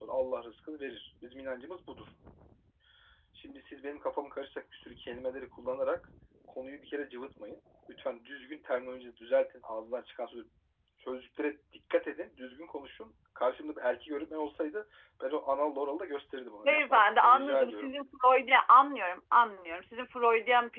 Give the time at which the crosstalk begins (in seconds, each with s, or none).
16.6 s